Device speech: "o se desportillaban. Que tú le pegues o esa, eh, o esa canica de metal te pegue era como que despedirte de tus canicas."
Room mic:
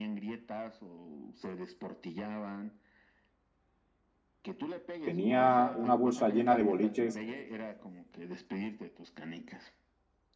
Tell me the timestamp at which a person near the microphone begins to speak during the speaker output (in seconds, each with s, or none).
5.0 s